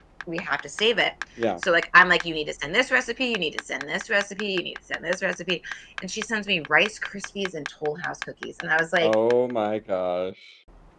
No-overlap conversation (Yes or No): Yes